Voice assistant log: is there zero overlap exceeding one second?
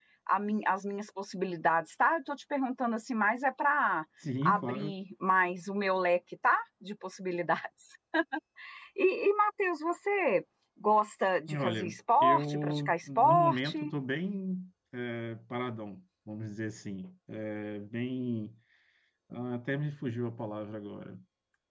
No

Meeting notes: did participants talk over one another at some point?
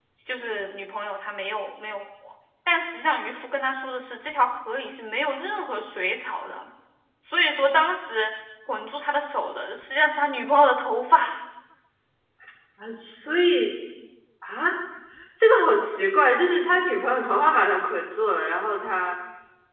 No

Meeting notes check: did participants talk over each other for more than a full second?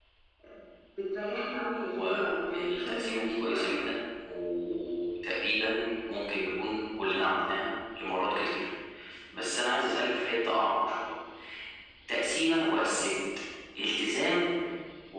Yes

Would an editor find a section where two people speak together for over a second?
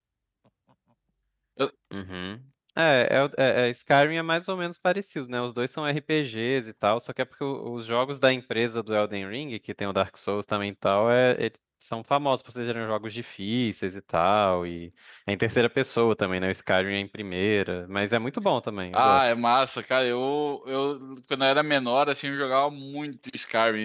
No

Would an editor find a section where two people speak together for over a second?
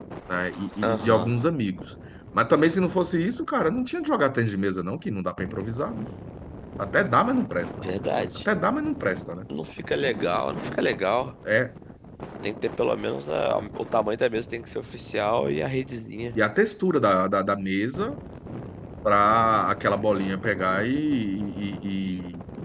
No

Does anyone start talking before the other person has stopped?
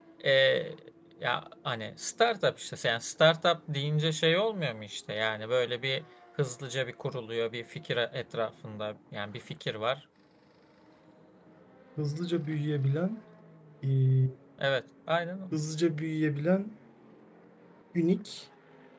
No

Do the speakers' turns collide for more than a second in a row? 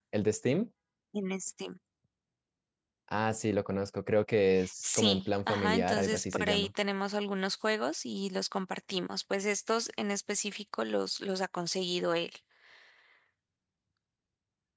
Yes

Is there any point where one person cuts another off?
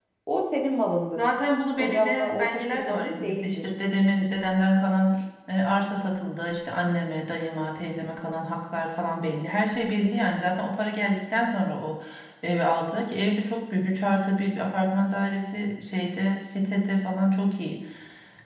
Yes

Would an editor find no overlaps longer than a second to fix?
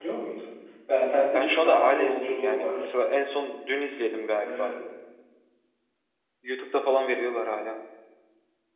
No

